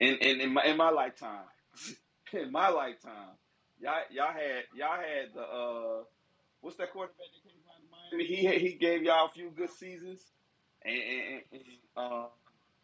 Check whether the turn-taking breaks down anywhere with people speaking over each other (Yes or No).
No